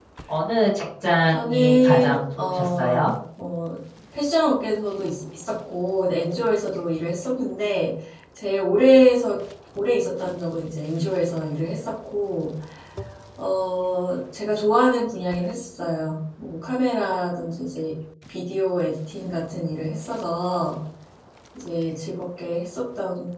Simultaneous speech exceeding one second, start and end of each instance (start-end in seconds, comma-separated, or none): 1.3-3.1